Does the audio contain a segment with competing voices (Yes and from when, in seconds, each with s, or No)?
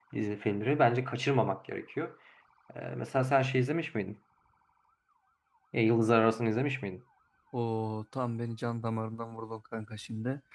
No